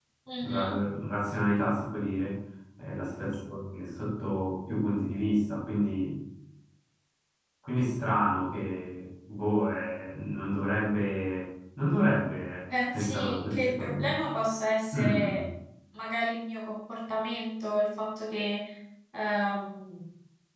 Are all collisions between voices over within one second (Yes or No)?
No